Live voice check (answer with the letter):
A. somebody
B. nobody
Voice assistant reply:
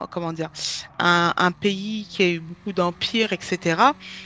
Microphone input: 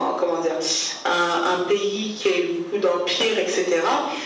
B